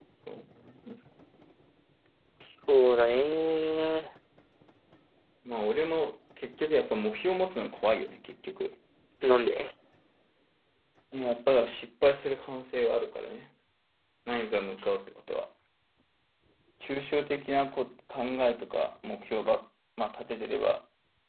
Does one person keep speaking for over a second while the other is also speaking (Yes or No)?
No